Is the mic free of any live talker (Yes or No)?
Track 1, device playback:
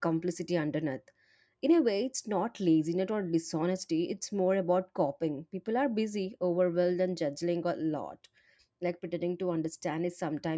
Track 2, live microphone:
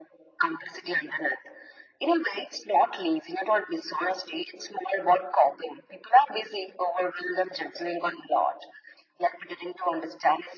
Yes